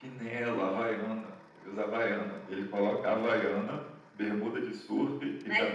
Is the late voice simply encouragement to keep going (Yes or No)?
No